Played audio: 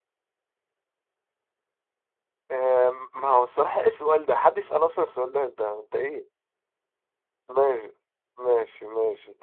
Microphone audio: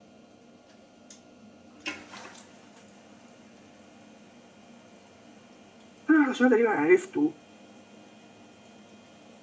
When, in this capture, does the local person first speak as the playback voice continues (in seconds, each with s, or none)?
6.1 s